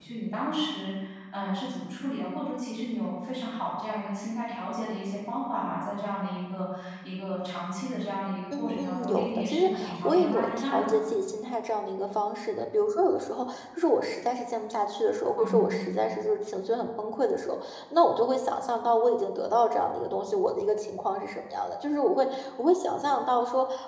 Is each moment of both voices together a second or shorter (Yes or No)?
No